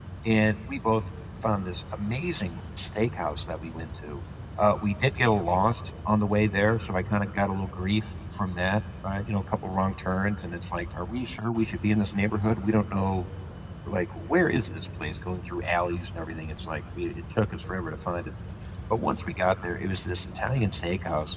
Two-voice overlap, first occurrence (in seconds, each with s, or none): none